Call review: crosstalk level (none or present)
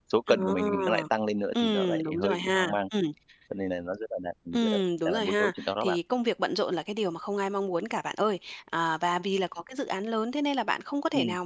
present